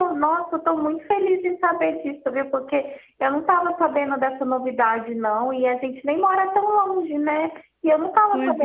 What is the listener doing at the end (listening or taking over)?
listening